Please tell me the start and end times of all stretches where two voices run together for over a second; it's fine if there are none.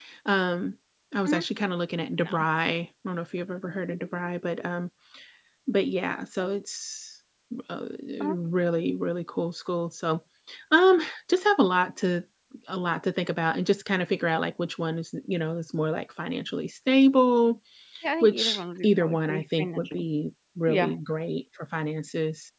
18.2-20.0

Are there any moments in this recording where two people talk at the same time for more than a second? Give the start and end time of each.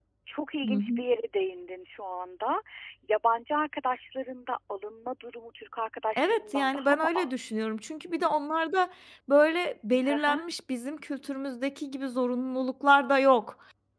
6.2-7.7

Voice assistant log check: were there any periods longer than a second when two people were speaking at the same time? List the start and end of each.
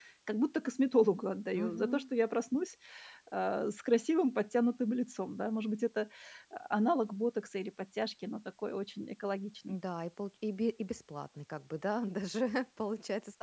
none

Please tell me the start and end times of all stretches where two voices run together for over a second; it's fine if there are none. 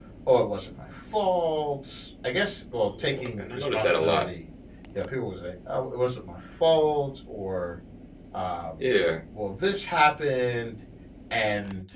2.8-4.2

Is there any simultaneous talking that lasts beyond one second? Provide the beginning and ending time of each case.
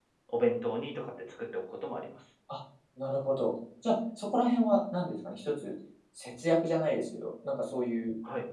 none

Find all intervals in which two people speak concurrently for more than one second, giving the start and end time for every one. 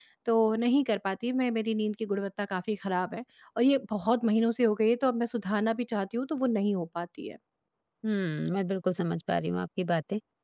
none

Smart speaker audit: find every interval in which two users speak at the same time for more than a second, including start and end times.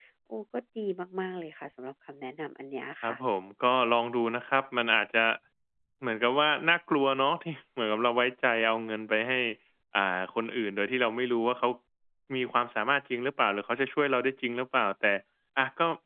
none

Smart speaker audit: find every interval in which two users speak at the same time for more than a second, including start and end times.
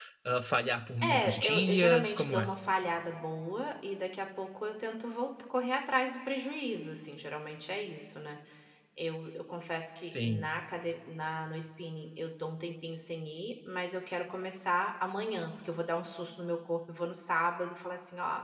1.0-2.5

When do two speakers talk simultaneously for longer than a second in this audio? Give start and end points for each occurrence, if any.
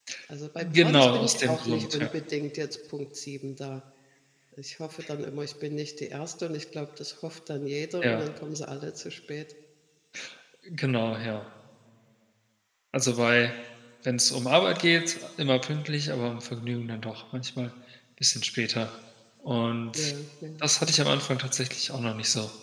0.6-2.1

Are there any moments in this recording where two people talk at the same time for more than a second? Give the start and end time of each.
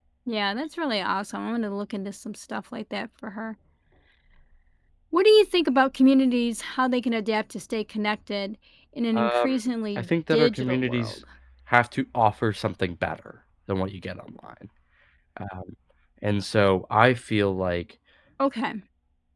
10.0-11.2

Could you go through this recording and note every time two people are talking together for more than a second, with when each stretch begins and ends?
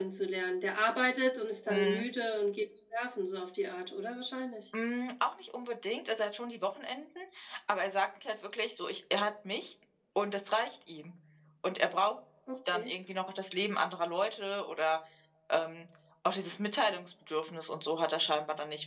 none

